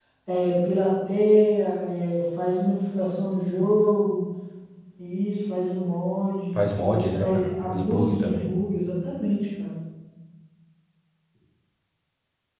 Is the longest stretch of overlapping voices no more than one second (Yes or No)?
No